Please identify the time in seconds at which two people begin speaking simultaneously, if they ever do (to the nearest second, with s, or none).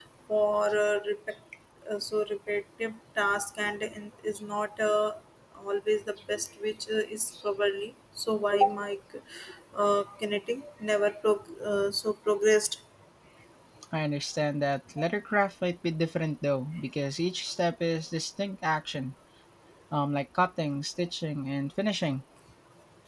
none